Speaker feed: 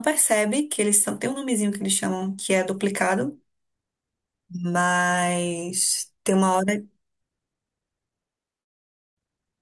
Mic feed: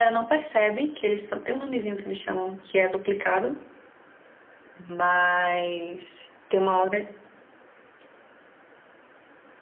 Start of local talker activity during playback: none

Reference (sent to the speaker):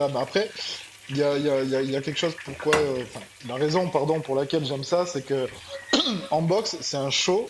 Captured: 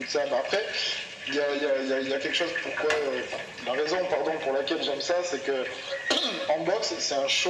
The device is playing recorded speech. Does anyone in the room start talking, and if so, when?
none

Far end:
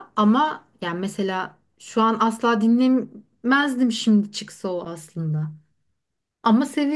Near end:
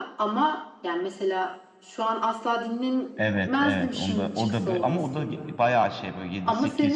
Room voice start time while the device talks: 3.2 s

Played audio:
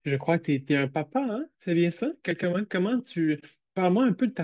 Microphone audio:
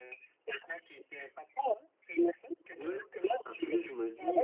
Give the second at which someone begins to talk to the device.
2.8 s

